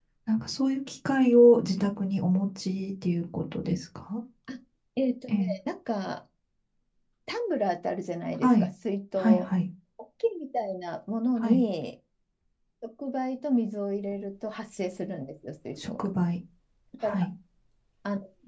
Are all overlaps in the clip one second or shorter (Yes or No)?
Yes